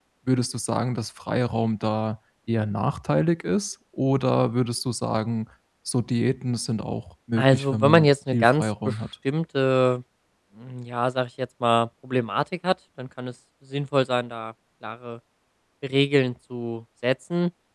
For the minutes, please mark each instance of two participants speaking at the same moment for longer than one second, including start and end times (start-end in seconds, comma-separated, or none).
7.4-9.0